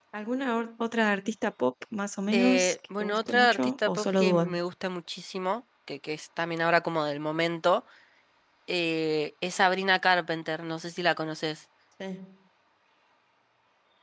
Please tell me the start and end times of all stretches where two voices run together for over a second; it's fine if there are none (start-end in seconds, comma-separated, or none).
2.3-4.5